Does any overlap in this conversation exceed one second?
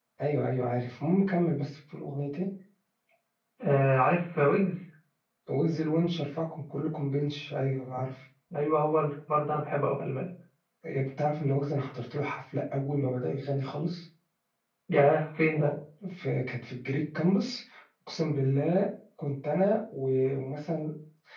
No

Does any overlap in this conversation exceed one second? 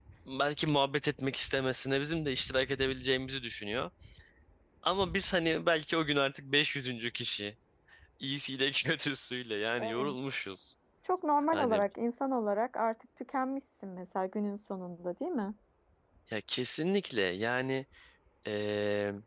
No

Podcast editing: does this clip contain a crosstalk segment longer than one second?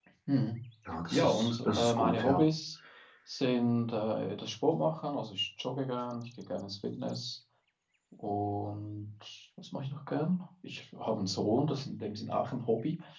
Yes, from 1.1 s

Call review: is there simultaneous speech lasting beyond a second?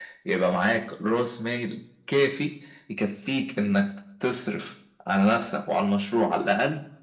No

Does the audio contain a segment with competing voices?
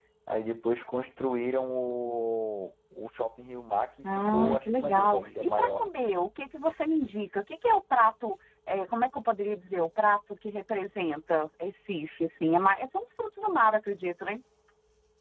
Yes, from 4.0 s

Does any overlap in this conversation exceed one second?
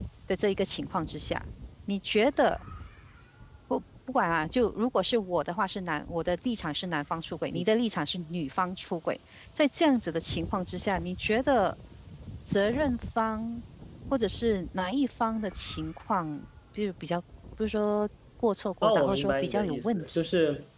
Yes, from 18.8 s

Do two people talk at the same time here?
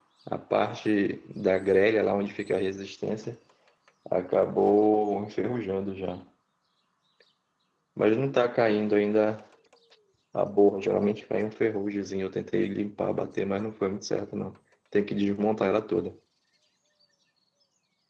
No

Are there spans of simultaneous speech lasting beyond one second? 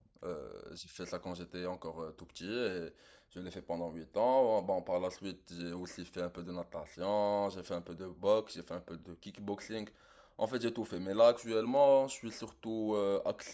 No

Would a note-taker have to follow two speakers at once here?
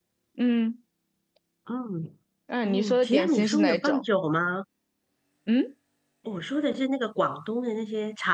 Yes, from 2.6 s

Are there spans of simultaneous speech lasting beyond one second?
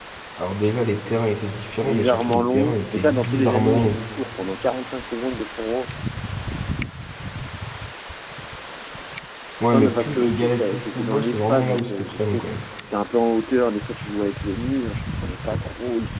Yes, from 1.8 s

